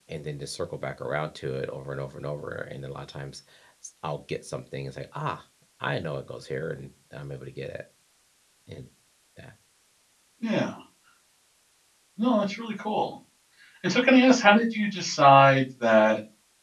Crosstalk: none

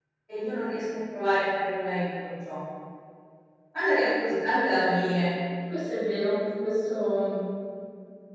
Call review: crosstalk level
none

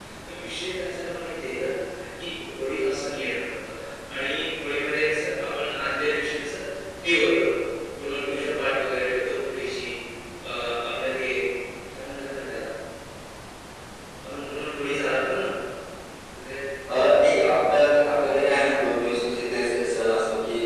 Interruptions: none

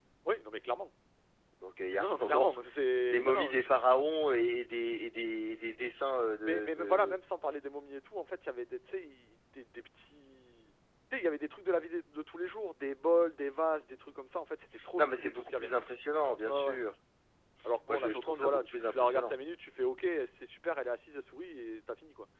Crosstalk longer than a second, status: present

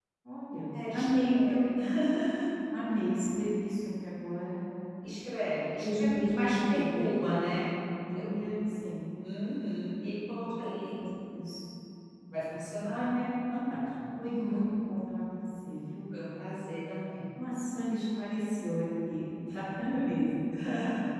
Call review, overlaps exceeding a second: present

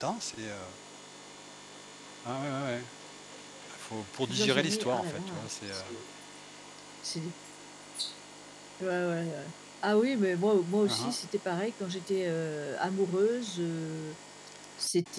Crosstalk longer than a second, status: present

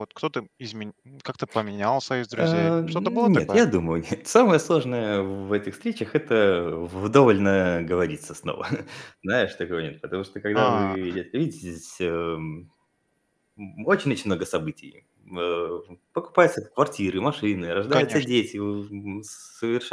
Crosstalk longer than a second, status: present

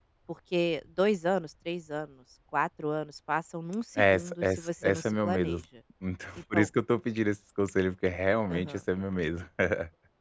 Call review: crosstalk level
present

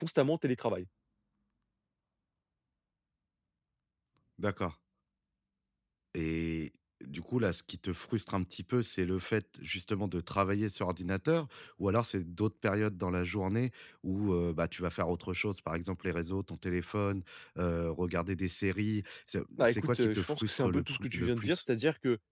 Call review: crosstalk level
present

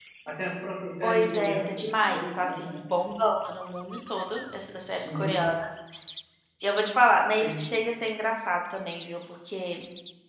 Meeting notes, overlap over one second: present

